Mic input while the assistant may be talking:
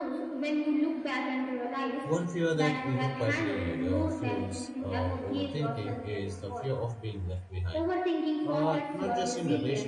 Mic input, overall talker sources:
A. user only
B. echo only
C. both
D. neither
C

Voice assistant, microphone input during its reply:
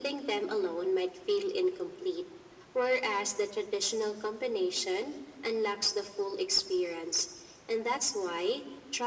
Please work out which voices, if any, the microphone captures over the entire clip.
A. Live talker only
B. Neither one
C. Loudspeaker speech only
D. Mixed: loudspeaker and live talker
C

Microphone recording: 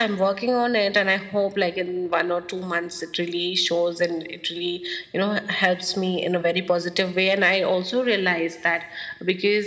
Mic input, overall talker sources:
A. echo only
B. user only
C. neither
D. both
A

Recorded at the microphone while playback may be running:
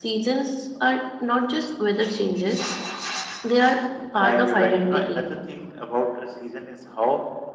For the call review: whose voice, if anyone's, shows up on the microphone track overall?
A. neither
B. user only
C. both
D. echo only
D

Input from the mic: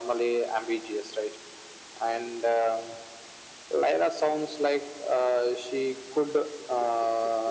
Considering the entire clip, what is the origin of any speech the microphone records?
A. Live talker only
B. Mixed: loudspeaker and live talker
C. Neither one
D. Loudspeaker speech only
D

